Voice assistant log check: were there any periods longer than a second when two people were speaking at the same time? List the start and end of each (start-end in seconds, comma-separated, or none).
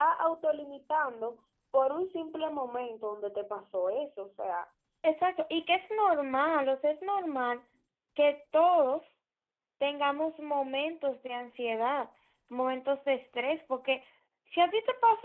none